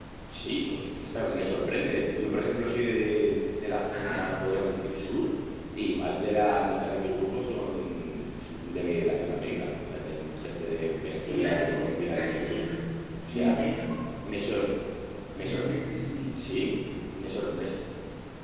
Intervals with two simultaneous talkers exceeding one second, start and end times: 11.3-12.6

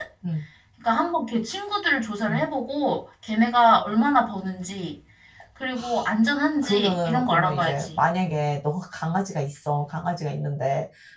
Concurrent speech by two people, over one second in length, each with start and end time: 6.6-8.0

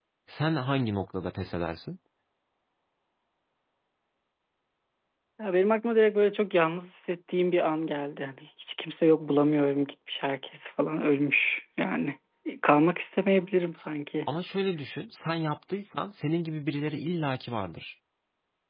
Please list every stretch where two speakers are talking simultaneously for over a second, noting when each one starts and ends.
none

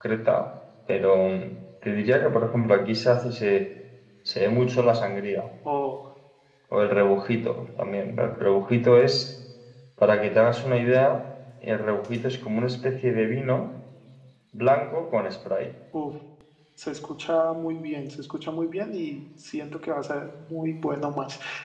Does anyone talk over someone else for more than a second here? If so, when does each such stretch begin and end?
none

